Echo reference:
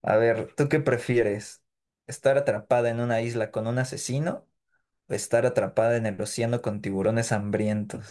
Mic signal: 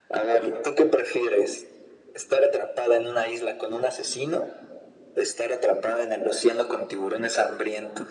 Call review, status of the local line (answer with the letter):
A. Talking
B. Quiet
B